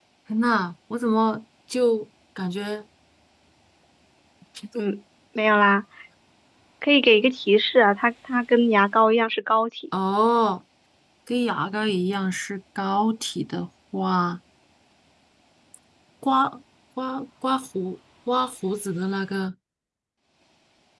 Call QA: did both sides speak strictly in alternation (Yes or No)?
Yes